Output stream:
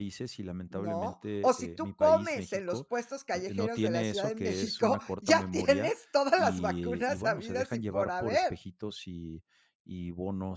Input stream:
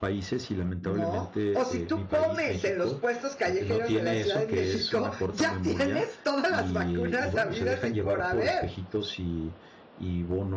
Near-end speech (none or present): none